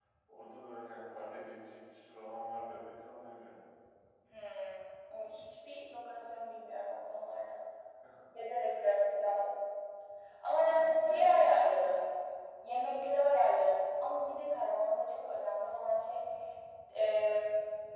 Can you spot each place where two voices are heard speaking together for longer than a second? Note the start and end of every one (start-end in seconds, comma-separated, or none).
10.6-11.9